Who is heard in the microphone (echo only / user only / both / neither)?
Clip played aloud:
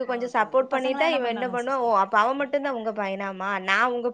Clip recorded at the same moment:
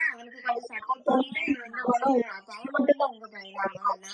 echo only